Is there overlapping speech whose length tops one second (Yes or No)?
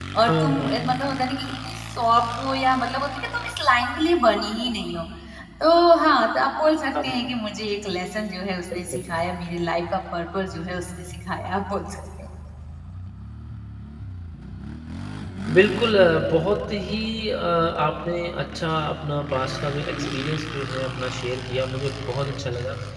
No